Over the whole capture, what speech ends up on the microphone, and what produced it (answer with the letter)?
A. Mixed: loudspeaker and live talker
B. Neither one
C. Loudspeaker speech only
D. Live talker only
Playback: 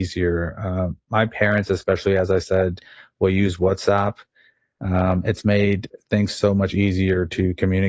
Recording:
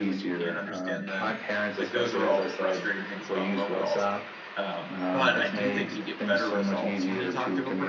A